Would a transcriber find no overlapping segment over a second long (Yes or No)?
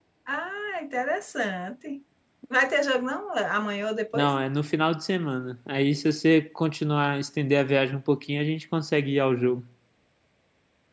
Yes